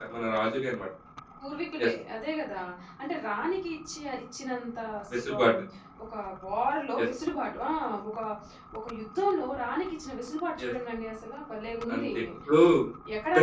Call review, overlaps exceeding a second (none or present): none